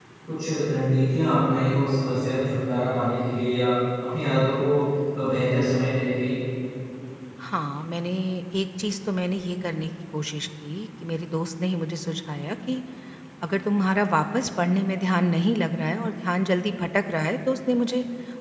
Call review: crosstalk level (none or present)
none